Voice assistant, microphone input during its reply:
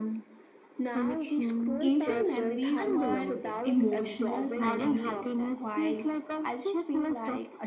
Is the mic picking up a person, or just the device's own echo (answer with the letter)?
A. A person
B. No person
A